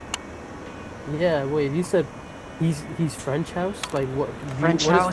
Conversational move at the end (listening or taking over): taking over